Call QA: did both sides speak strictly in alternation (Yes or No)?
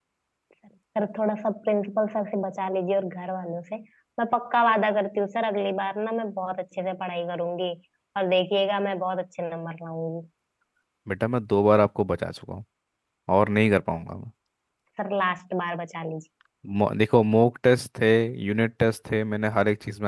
Yes